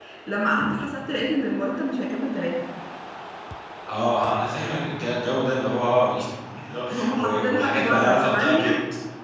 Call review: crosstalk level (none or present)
present